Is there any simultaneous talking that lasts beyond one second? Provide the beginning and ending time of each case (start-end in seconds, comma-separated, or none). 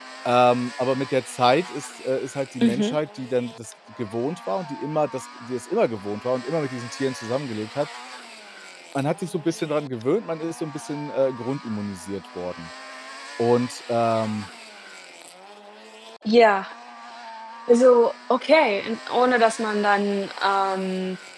none